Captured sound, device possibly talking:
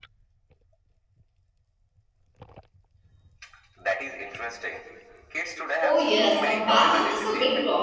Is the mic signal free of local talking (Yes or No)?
No